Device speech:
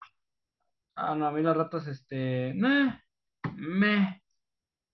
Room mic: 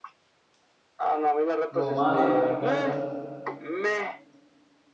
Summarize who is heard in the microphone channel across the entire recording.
both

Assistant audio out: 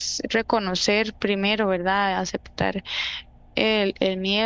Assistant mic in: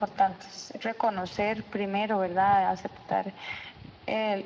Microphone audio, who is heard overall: echo only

